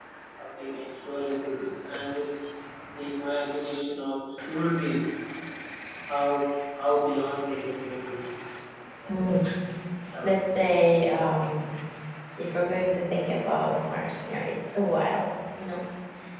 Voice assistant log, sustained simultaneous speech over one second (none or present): none